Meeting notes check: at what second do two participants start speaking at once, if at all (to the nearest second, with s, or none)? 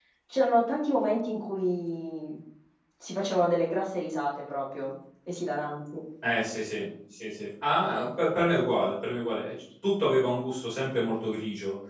none